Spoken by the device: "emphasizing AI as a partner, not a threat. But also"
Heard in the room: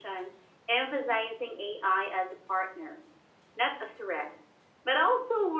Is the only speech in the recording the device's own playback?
Yes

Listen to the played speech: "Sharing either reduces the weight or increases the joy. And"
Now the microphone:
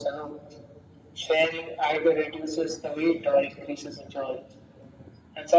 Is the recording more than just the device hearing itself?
No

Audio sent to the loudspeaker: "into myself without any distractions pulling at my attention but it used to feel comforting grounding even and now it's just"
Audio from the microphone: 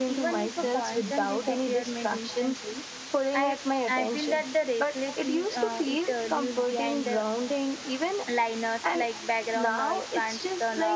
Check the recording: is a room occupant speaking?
Yes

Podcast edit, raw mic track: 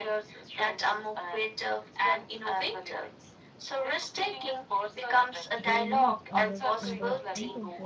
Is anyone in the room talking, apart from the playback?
Yes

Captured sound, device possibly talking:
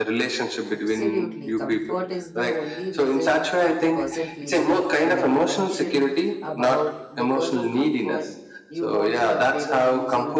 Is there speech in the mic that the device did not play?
Yes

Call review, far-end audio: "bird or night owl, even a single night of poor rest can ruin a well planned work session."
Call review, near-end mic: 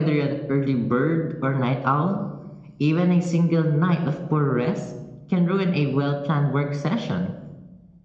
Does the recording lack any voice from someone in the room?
Yes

